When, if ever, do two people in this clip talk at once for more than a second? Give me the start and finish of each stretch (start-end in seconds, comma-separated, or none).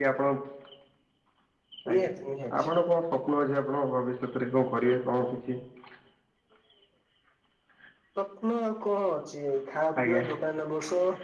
none